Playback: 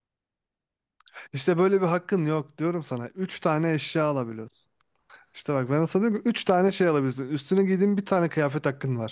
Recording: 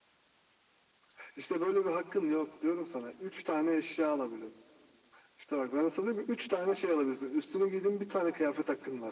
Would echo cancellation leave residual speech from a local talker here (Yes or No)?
No